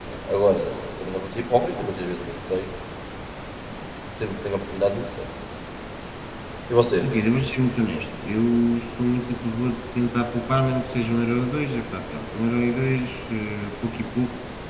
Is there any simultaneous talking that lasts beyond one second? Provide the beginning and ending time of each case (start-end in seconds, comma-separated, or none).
none